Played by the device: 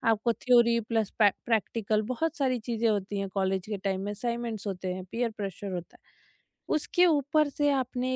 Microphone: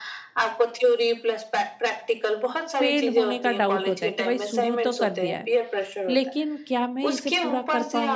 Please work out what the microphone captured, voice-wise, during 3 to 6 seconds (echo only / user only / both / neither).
both